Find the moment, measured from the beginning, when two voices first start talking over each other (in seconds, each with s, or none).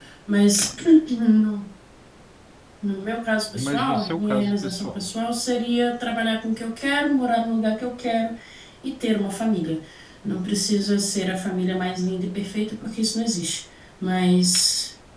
3.5 s